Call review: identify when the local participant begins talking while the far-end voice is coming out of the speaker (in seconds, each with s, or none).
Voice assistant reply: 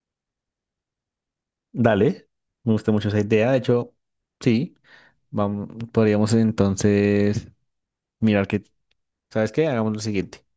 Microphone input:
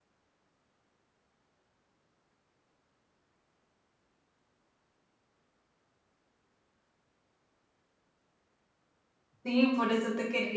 9.4 s